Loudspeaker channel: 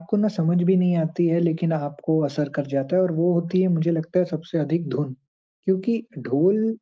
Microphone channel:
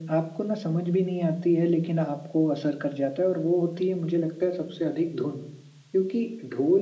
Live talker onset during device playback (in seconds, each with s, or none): none